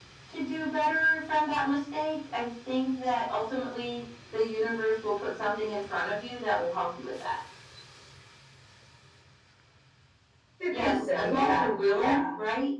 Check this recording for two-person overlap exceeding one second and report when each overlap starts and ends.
10.7-12.2

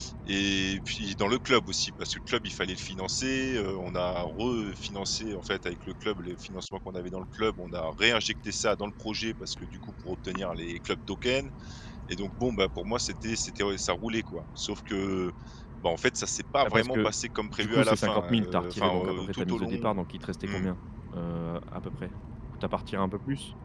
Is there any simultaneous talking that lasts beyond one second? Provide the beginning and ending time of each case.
17.5-19.9

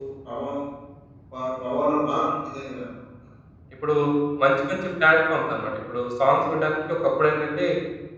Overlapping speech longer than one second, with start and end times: none

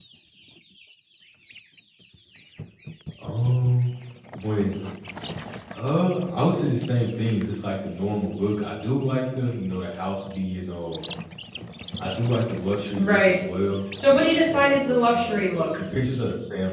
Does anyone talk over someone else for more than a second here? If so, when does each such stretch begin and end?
14.1-15.8

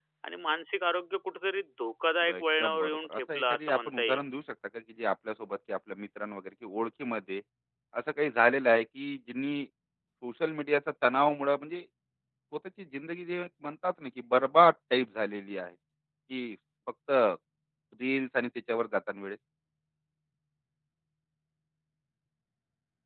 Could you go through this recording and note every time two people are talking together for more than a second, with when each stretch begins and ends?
2.3-4.2

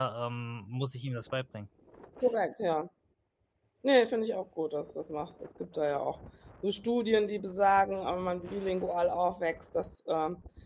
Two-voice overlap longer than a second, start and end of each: none

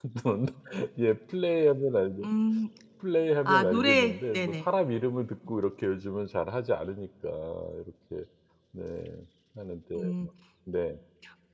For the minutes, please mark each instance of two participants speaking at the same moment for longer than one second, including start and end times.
3.5-4.7

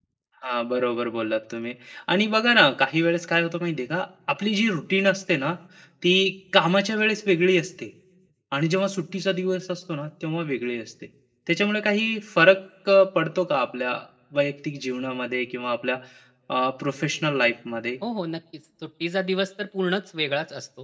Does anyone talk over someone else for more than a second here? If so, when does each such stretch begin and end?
none

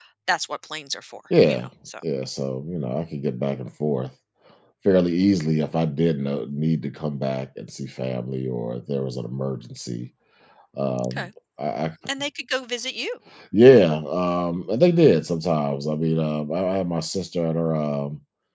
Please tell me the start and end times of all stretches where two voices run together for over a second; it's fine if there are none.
none

